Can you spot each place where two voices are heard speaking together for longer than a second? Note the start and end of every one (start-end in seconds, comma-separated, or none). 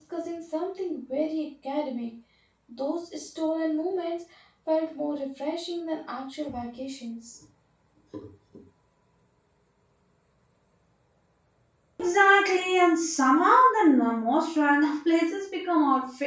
none